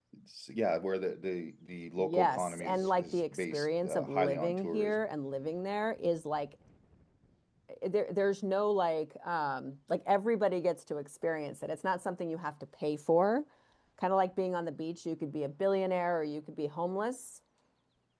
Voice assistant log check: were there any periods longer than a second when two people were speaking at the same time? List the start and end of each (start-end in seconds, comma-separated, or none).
2.0-5.0